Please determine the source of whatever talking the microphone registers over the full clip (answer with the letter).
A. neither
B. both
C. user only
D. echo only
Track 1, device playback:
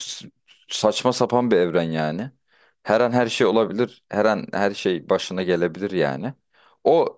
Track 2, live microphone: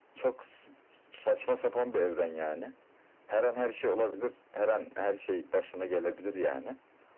D